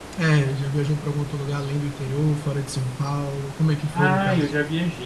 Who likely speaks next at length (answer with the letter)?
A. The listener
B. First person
A